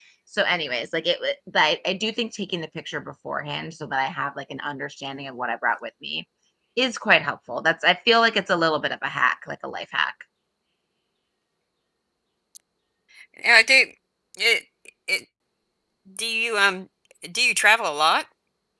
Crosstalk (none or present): none